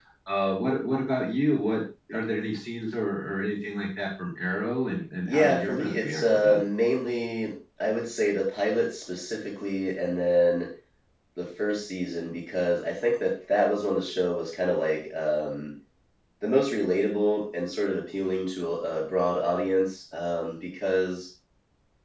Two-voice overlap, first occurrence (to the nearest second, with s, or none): 5 s